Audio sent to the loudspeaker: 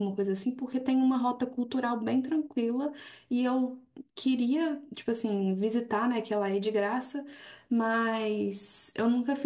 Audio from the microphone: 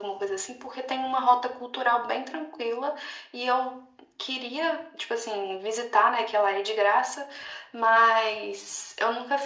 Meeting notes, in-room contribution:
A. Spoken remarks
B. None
B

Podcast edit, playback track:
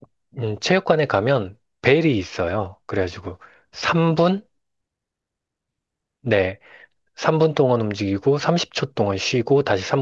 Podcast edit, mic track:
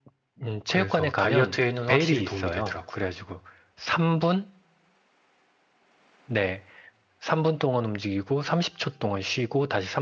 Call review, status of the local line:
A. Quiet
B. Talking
B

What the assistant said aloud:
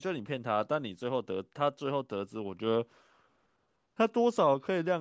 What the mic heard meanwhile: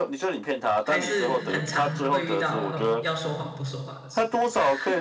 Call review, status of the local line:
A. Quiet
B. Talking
B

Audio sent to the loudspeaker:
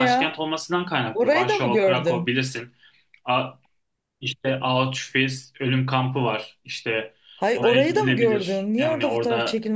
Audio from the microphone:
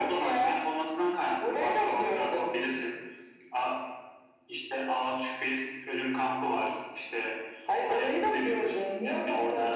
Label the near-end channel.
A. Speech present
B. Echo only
B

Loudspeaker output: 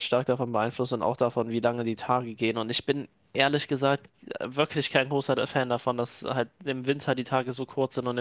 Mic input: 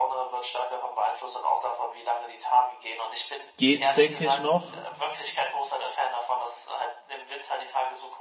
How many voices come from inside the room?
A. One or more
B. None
A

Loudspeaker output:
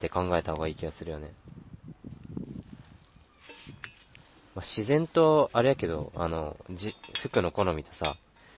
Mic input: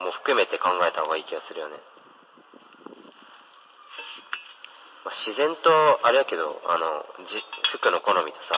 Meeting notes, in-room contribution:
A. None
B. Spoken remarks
A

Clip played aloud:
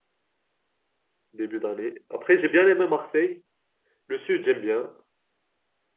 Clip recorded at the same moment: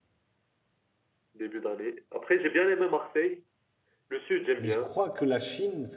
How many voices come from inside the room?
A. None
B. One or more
B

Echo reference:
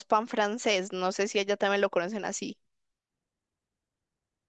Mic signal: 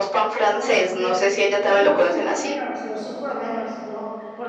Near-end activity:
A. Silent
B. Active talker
B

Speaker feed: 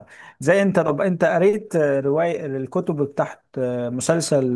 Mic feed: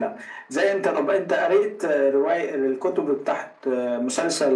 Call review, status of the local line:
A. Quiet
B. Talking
A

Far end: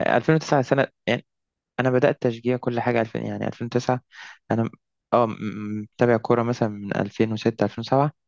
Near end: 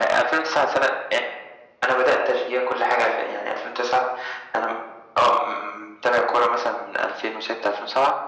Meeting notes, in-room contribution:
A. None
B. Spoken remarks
A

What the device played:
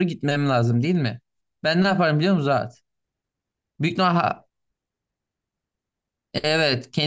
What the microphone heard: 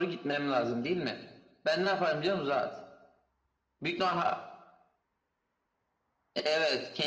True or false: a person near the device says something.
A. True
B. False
B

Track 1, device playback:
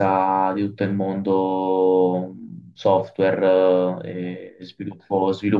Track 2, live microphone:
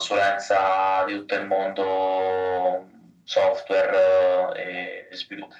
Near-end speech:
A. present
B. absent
B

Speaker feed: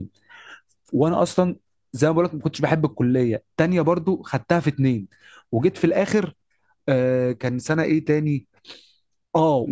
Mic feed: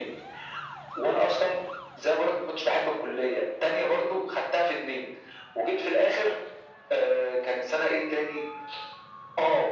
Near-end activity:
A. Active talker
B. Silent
B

